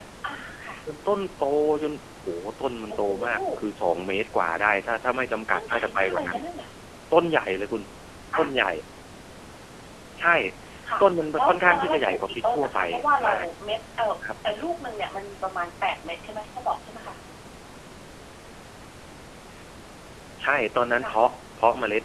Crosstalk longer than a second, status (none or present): present